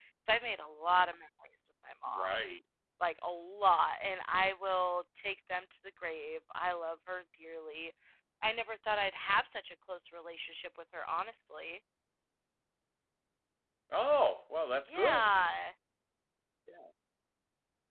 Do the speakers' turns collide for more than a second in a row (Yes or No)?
No